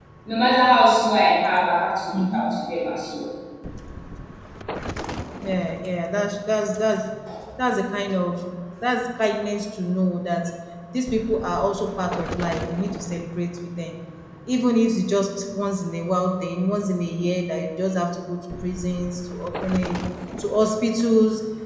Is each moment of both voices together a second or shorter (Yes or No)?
Yes